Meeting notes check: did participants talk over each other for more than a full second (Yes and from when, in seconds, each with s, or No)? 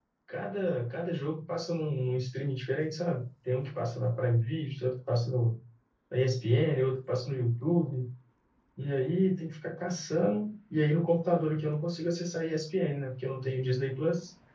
No